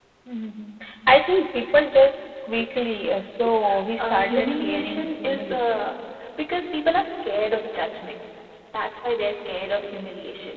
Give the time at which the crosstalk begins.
4.0 s

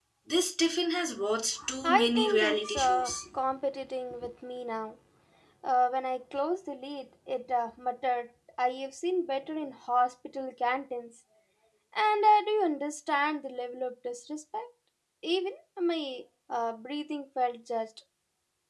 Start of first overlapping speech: 1.6 s

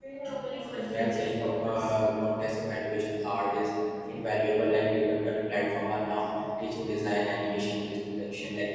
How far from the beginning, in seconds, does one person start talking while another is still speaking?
0.7 s

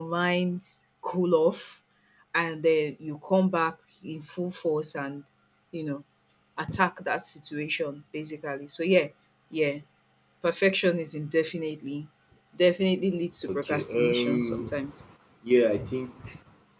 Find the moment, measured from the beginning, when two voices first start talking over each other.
13.4 s

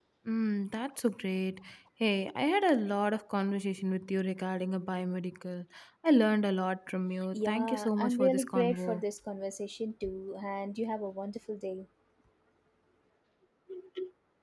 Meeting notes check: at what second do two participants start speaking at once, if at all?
7.3 s

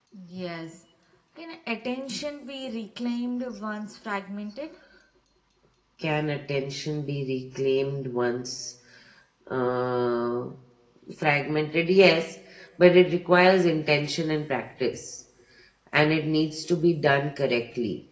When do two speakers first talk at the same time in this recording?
none

